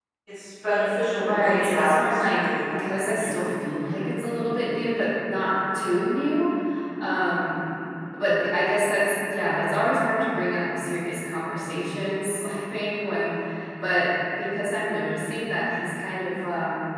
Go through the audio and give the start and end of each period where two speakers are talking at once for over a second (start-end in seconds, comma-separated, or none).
1.1-3.4